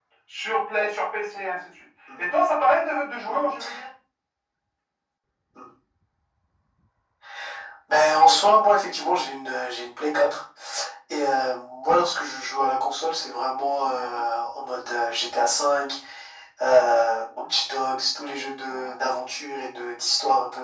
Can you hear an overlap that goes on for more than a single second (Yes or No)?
No